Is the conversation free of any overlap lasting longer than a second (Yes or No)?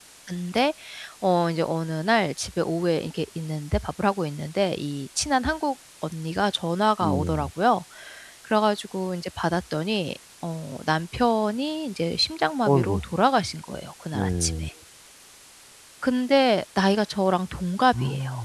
Yes